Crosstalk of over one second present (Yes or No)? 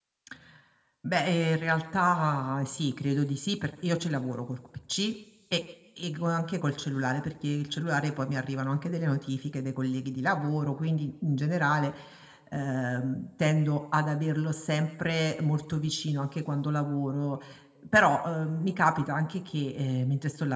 No